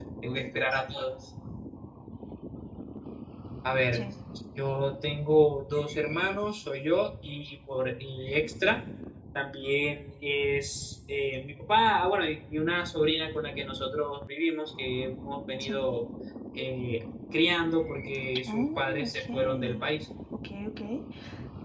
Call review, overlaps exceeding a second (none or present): present